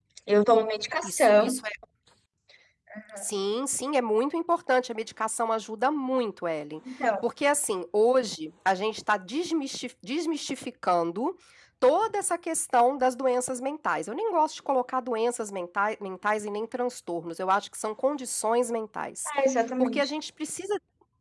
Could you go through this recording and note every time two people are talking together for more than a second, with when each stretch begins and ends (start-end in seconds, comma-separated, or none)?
none